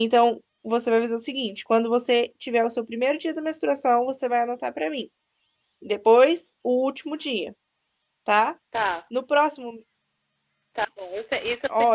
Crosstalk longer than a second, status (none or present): none